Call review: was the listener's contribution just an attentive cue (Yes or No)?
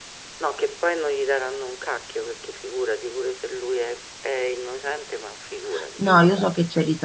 No